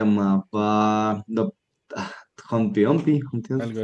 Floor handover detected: Yes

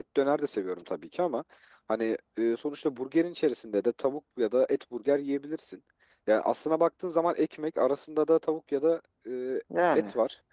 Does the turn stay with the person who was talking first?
Yes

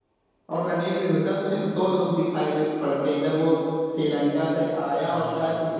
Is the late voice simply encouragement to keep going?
Yes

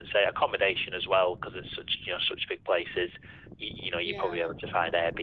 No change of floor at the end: Yes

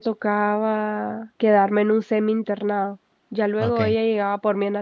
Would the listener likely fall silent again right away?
Yes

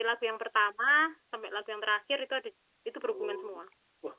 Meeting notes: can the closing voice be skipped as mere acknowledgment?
No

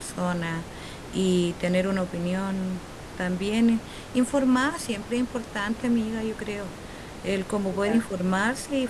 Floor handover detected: No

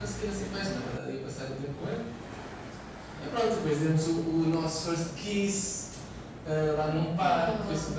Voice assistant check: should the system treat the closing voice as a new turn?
No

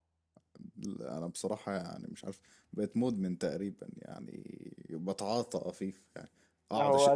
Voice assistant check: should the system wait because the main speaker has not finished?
Yes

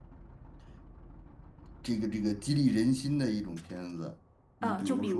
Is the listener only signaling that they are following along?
No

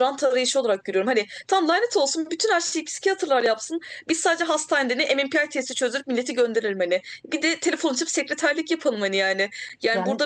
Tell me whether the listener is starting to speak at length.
No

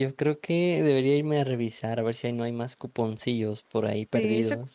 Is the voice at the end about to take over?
Yes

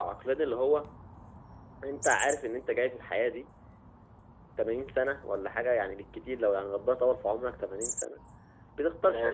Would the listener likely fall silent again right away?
No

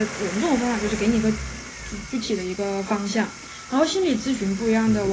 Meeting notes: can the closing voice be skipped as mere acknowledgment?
Yes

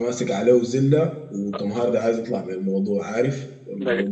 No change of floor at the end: Yes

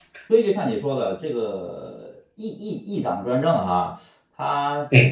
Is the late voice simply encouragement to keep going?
Yes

